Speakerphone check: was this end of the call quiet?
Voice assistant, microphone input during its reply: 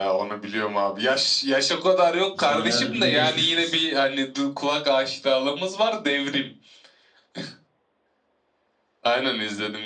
No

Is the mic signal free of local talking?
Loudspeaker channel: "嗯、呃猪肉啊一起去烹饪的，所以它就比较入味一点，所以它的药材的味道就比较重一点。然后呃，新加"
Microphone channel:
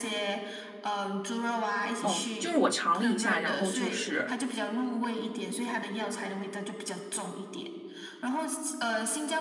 No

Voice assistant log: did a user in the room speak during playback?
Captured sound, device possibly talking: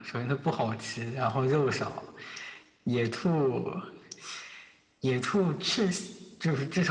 No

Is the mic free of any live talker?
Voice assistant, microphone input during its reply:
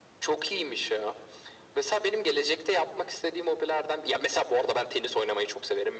Yes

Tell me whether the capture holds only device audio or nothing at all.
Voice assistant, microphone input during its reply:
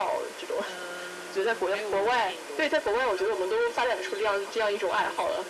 Yes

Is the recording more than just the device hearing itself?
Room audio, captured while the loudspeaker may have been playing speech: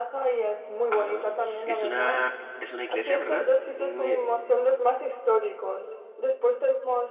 Yes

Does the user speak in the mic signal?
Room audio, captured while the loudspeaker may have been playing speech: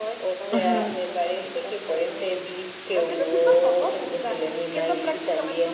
Yes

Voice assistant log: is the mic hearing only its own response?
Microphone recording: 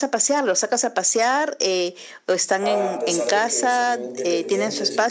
No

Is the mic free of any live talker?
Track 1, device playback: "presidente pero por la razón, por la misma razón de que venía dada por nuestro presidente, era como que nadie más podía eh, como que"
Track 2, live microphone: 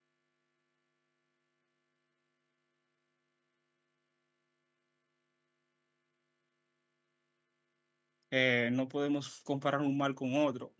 No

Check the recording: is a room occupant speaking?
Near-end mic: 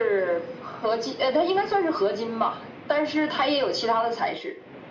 No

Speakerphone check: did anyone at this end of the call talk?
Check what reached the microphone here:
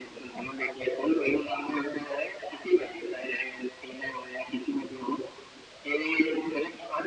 No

